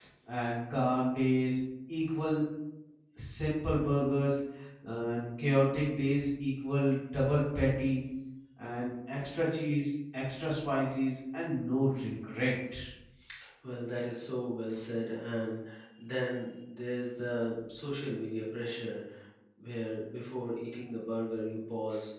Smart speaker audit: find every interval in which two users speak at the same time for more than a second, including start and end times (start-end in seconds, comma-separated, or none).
none